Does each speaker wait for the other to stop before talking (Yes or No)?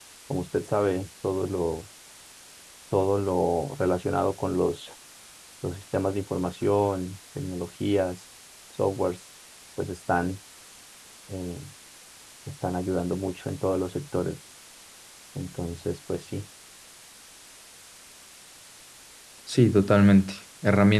Yes